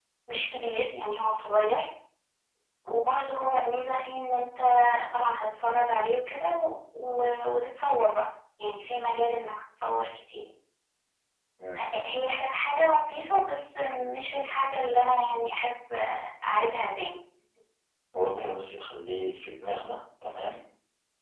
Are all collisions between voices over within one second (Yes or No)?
Yes